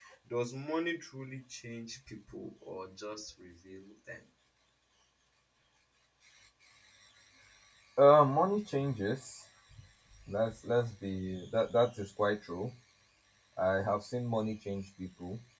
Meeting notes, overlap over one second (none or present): none